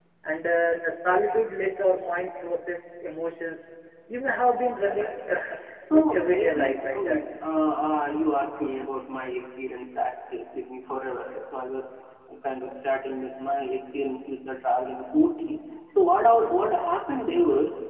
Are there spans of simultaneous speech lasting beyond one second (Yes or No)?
Yes